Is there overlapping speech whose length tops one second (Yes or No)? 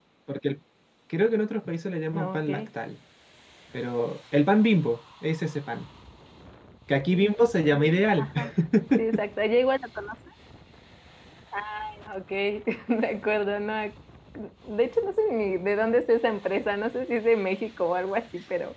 No